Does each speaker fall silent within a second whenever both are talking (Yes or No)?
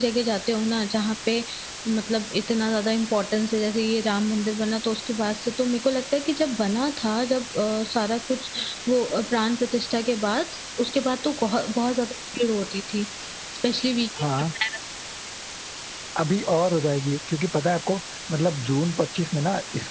Yes